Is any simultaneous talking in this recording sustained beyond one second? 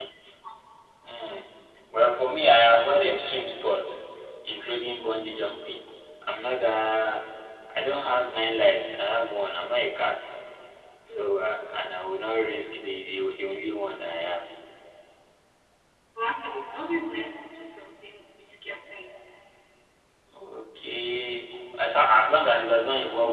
No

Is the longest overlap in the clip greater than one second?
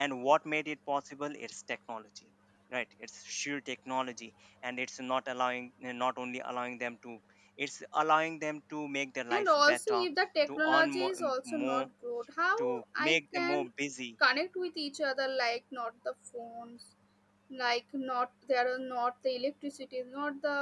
Yes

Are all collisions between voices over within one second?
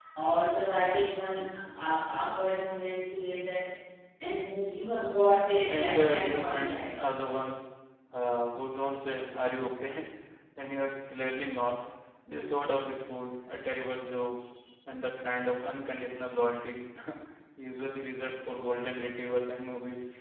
No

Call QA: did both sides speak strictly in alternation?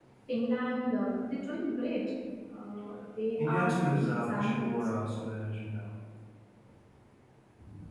No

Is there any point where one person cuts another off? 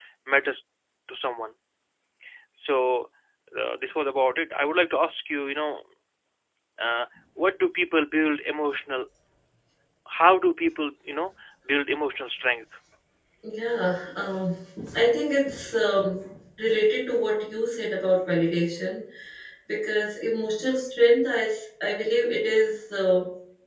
No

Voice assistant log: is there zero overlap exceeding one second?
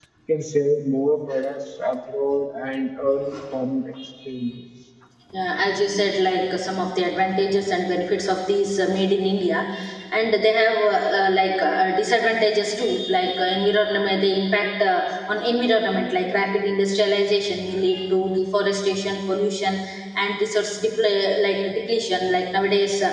Yes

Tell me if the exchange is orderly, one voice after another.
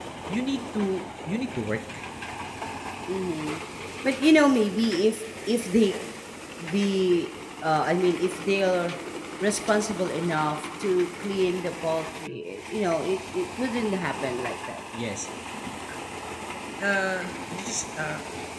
Yes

